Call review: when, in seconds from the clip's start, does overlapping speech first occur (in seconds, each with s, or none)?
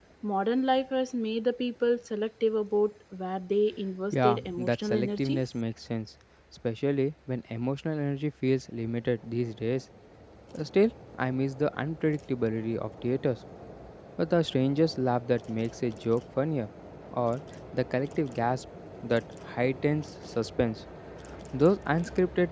4.1 s